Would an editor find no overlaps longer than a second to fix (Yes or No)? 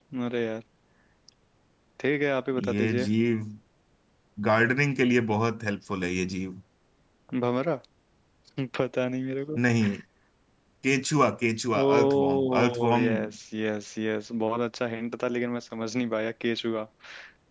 No